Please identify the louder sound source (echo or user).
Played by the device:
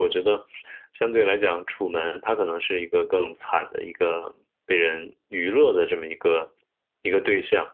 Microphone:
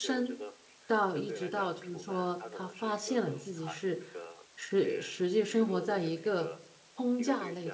user